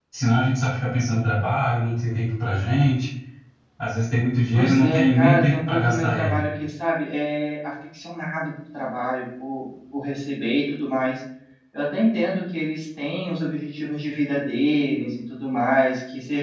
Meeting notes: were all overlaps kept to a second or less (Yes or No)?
No